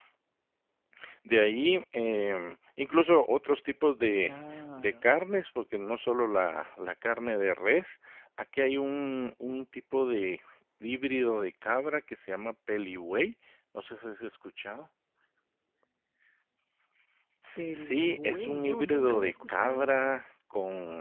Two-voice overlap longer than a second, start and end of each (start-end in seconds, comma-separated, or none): 17.7-20.1